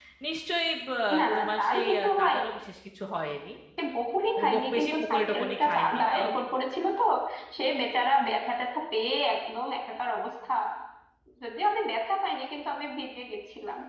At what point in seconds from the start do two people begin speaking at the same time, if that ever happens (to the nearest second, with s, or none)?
1 s